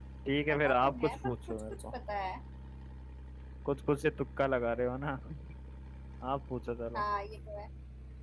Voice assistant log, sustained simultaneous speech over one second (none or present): present